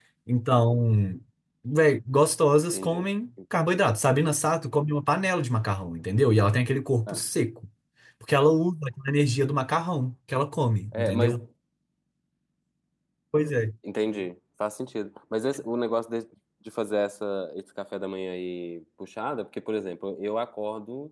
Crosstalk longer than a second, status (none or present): none